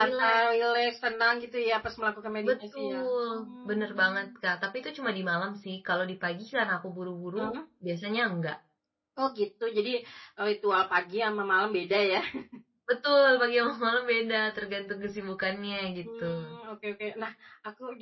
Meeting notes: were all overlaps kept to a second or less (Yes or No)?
No